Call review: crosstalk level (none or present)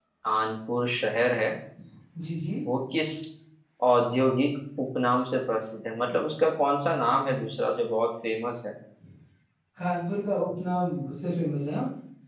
none